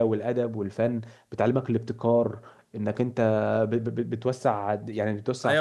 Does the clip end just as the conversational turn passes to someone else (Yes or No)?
Yes